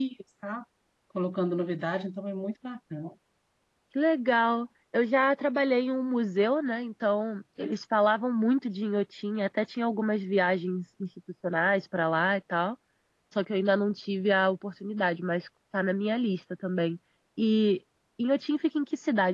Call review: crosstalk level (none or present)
none